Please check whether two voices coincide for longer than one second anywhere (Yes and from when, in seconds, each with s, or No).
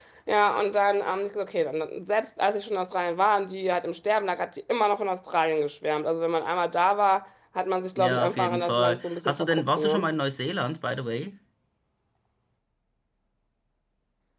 Yes, from 8.0 s